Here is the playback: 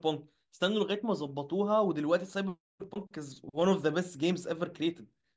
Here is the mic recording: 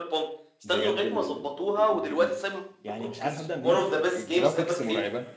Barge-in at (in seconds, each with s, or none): 0.6 s